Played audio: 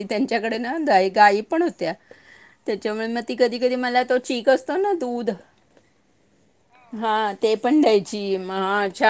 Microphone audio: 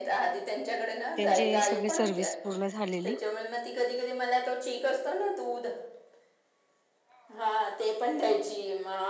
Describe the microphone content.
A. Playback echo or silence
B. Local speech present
B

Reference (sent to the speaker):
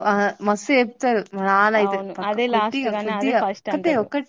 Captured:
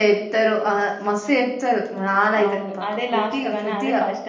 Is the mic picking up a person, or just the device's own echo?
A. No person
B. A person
A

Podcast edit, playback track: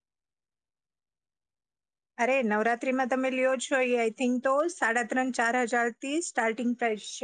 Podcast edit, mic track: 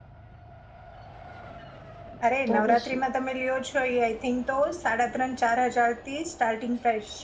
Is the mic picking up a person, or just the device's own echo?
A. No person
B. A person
B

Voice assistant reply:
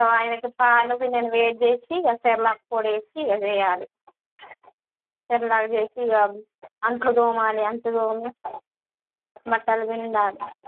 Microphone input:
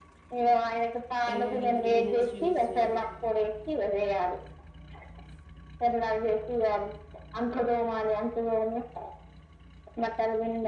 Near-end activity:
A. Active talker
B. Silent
A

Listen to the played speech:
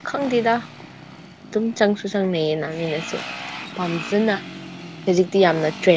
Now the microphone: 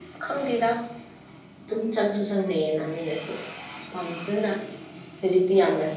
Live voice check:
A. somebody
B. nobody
B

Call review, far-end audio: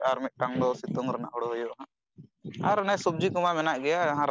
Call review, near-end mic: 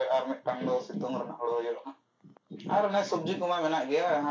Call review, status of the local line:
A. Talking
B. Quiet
B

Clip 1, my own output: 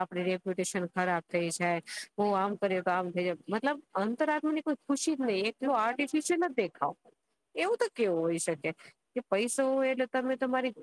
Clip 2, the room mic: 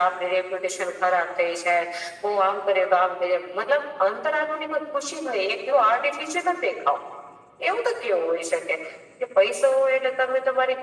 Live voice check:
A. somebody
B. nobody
B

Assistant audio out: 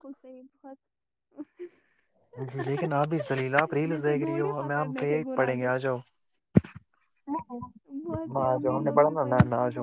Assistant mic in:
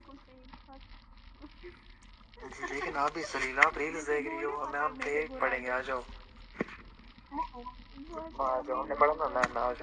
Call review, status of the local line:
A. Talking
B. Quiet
B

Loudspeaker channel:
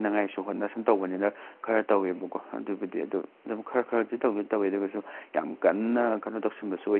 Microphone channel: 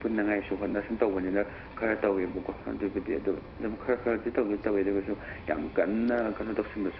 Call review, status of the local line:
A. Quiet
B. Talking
A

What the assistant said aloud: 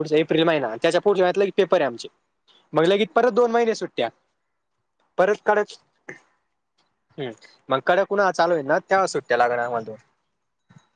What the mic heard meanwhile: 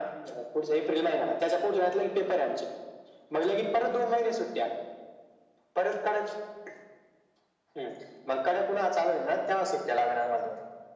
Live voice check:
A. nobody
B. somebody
A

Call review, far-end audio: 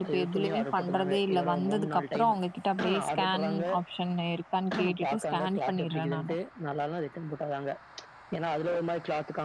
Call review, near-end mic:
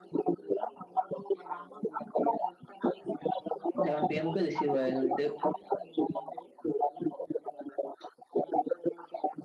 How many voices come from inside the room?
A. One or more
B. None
A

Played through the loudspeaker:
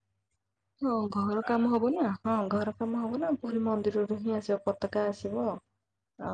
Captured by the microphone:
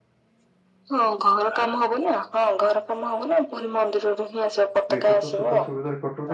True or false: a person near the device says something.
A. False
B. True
B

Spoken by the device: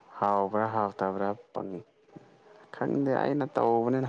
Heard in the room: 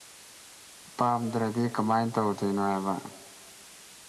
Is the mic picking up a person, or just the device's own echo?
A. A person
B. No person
A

